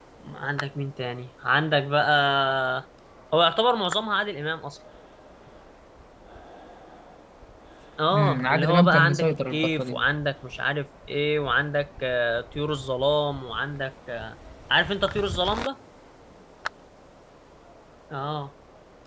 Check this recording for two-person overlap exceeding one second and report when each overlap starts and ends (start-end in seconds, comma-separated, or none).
8.1-10.0